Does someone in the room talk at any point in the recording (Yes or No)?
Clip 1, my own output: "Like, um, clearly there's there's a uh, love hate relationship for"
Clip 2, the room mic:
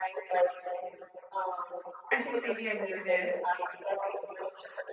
Yes